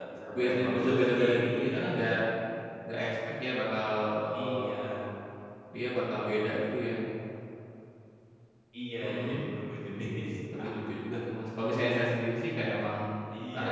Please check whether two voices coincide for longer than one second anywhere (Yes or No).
Yes